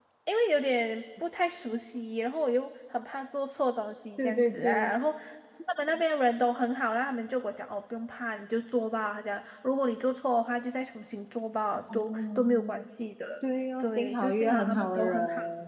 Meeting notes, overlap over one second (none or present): present